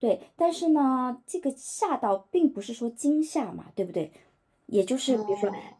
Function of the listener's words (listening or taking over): listening